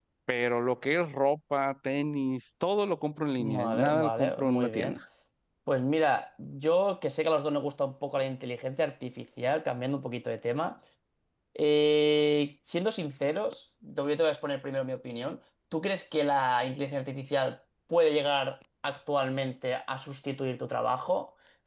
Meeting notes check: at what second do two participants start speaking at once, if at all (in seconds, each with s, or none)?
3.4 s